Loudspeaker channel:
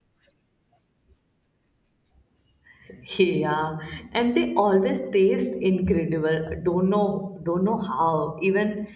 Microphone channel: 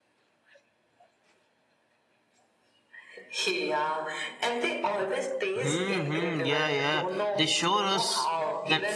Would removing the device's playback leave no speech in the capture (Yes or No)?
No